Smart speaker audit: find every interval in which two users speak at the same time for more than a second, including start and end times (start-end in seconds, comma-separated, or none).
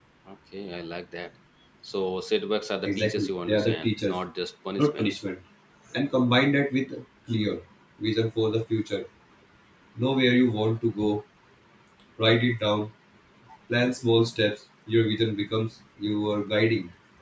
2.9-4.2